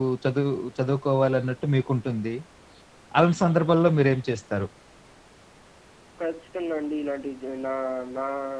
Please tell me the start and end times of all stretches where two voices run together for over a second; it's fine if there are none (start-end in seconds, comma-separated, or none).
none